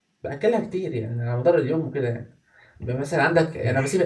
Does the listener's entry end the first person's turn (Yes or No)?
No